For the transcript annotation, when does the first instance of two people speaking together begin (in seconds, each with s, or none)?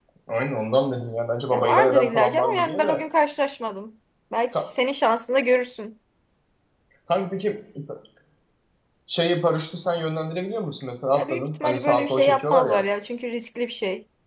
1.5 s